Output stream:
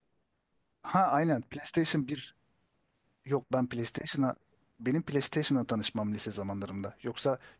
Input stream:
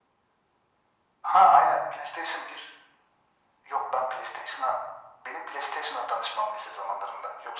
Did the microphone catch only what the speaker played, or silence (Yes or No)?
Yes